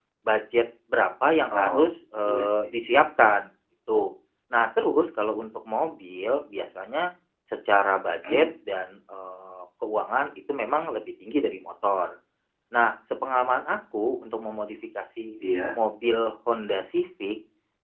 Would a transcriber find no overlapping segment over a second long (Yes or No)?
Yes